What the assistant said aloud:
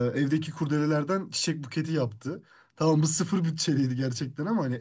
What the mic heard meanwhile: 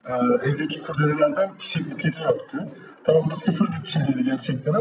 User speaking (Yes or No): No